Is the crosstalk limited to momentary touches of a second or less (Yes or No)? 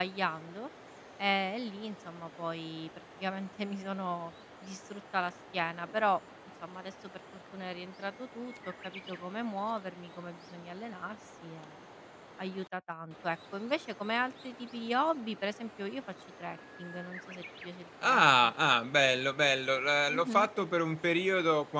Yes